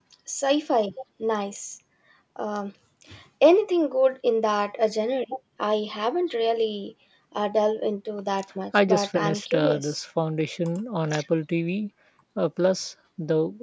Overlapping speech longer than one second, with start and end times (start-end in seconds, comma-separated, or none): 8.7-10.0